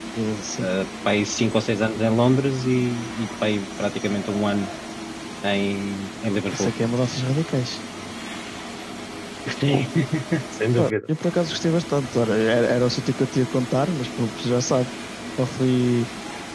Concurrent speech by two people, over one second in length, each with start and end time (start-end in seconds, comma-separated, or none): none